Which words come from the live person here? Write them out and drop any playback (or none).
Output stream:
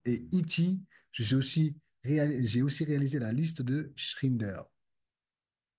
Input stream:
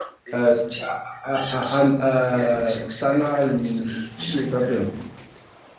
euh, à- à- à- euh, Tanal ou je sais plus comment il s'appelle.